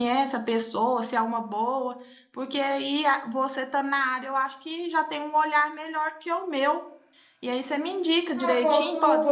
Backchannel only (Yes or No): No